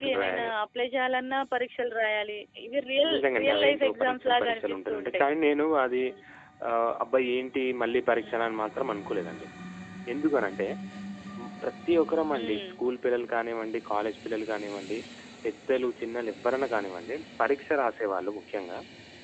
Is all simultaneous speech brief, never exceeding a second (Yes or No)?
No